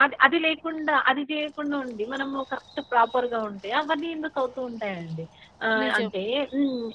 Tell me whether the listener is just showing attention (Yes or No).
Yes